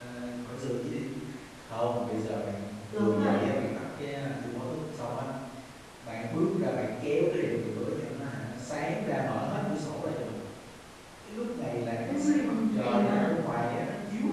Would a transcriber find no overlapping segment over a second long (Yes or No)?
No